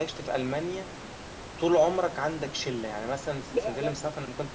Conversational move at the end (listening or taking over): listening